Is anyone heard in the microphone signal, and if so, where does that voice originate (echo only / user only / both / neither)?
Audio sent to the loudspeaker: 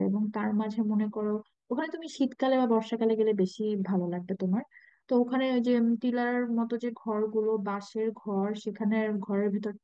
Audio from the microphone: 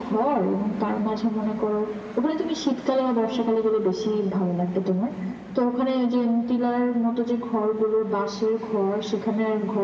echo only